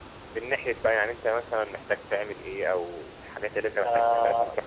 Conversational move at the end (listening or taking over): taking over